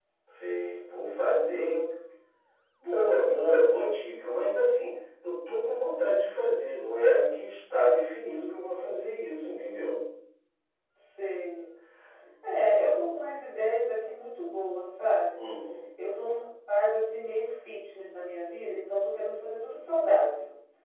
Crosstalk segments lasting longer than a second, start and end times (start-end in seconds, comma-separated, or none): none